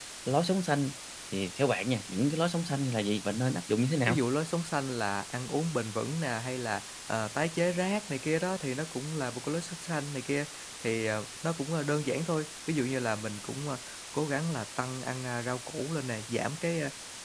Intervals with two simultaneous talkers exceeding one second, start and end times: none

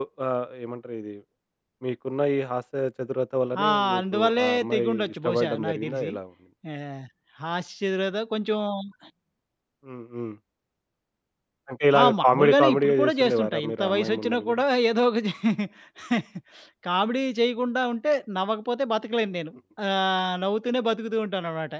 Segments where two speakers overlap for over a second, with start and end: 3.6-6.1, 12.0-14.6

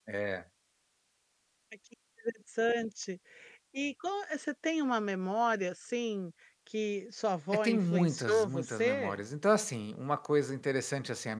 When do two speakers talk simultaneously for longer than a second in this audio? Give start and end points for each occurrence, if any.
7.5-9.2

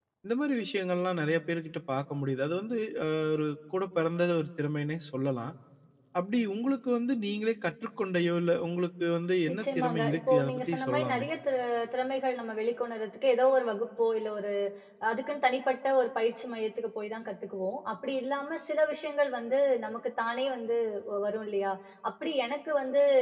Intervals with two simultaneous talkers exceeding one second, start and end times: 9.5-11.3

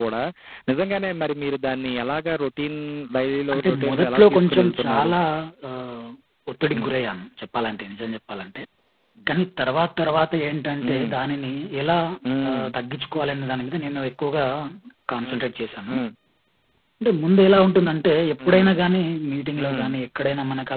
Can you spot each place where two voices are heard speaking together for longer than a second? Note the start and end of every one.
3.5-5.1

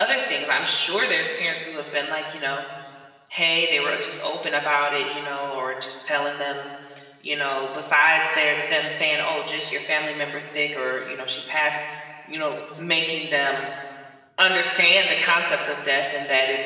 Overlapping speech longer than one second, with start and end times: none

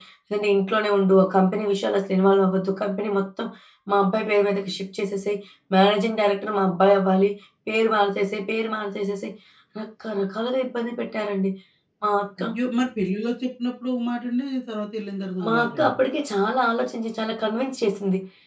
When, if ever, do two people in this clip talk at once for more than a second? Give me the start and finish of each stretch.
none

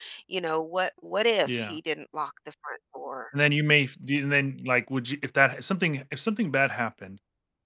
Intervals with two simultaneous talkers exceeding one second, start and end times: none

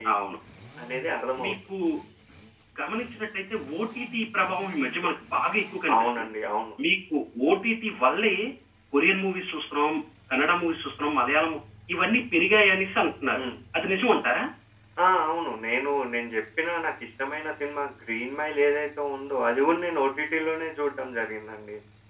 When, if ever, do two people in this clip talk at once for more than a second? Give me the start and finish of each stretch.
none

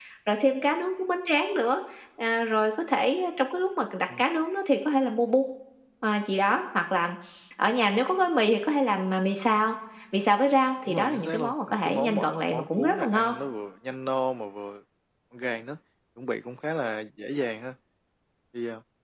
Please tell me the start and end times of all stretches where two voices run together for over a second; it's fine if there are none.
10.8-13.3

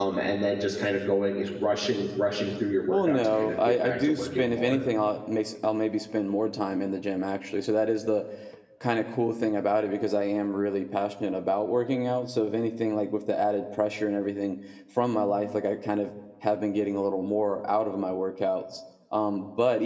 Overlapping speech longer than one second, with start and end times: 2.9-4.8

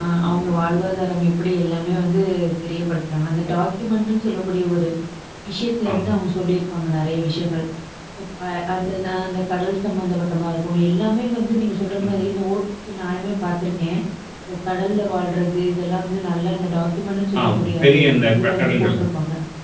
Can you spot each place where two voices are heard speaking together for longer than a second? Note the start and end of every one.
17.4-18.9

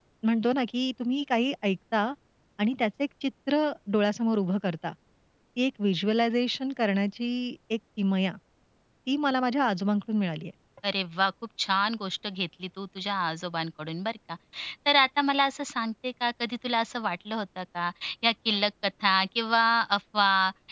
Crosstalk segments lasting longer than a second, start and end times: none

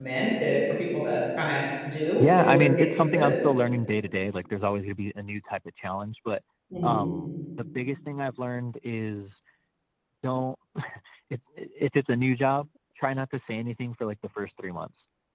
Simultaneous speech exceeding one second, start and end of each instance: 2.2-3.4

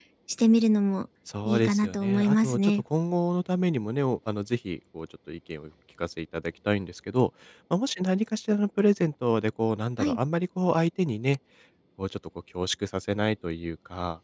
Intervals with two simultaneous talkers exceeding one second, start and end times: 1.4-2.7

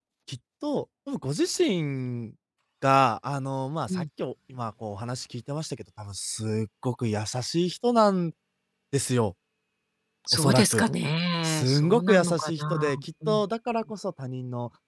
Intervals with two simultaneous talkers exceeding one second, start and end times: 11.4-13.4

